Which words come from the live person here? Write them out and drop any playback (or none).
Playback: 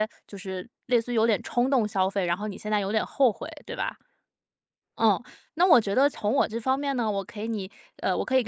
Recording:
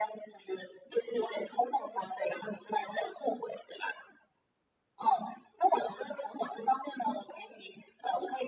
none